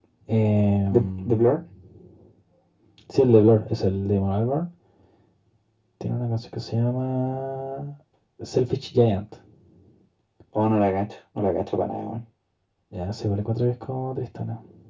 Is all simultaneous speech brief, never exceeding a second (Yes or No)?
Yes